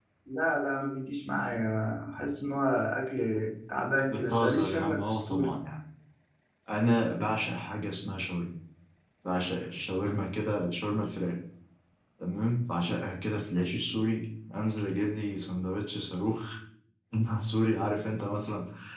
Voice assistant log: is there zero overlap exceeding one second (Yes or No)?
No